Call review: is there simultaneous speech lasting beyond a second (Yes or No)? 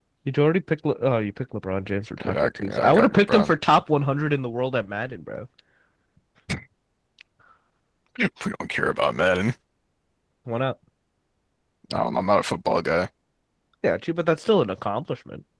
Yes